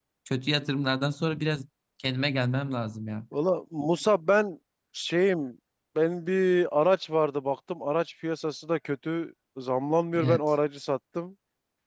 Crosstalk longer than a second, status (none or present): none